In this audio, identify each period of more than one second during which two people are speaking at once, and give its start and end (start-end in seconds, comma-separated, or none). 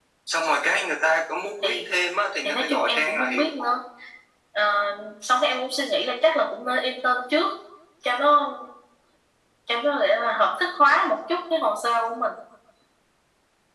2.4-3.8